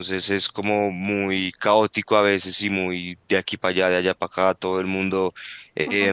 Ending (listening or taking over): listening